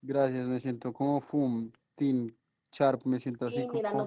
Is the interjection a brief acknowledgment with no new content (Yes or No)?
No